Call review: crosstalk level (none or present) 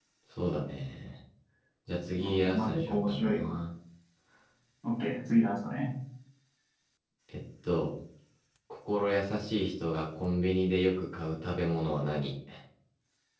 present